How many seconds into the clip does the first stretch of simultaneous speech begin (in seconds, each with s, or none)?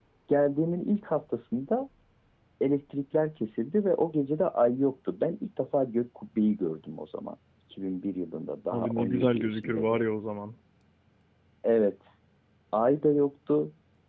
8.7 s